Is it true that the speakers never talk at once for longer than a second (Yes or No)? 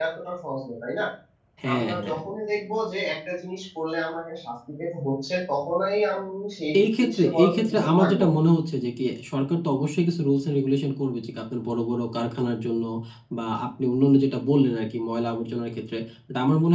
No